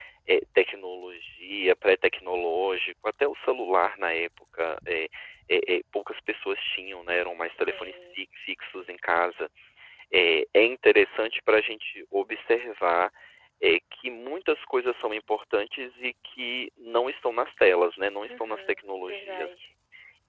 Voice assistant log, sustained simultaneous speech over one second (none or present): present